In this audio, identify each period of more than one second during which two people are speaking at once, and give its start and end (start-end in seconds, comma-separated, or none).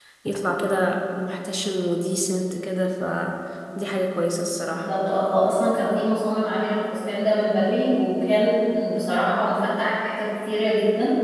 none